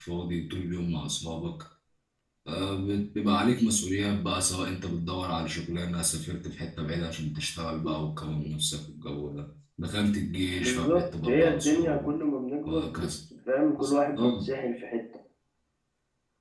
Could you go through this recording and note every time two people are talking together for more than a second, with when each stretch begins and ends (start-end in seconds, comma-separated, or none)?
10.5-12.1